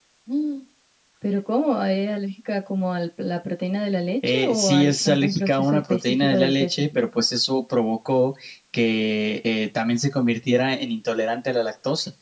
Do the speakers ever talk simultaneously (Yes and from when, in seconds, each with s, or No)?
Yes, from 4.2 s